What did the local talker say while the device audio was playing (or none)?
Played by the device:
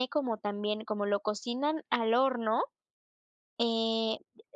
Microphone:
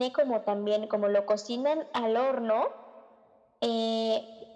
none